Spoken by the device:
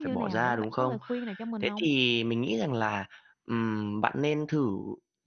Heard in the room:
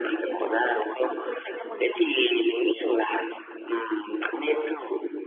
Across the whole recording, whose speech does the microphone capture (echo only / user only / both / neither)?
echo only